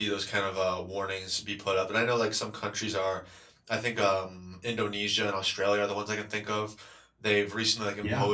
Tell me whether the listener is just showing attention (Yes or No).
Yes